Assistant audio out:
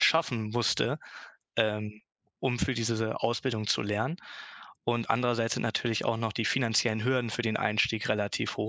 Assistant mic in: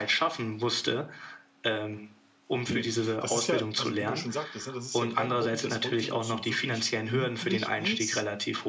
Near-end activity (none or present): present